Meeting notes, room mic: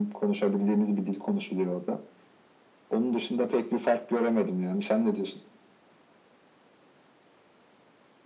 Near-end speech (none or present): none